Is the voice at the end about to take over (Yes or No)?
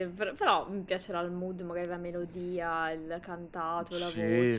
Yes